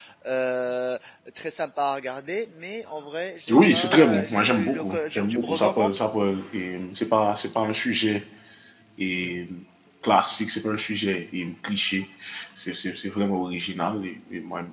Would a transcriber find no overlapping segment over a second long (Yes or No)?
No